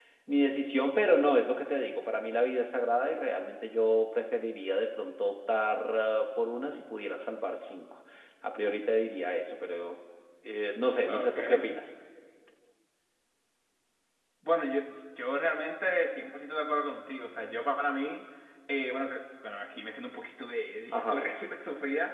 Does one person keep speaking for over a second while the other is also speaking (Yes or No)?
No